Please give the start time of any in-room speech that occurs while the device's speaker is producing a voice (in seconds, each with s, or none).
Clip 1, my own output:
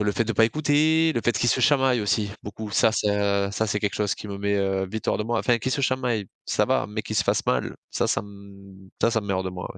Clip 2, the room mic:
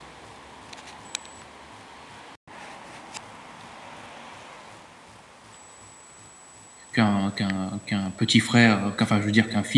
6.9 s